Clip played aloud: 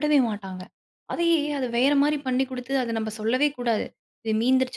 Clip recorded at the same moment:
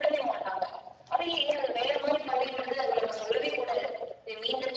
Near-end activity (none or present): none